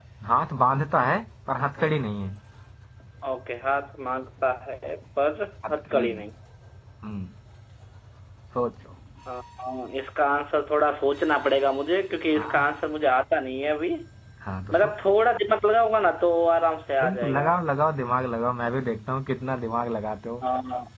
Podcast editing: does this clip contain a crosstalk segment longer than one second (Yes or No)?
No